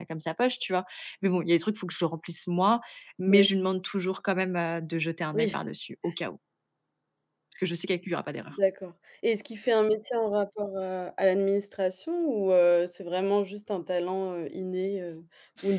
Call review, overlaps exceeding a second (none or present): none